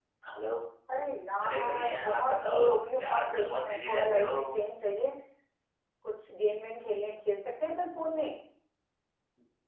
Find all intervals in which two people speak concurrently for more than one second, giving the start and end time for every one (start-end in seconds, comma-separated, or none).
1.4-4.6